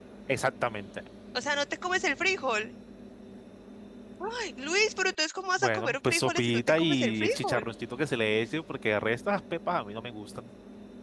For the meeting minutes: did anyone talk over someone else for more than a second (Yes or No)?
Yes